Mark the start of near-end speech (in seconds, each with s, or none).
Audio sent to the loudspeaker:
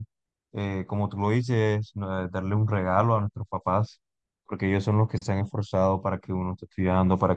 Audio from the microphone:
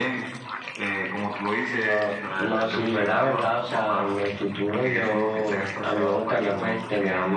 1.8 s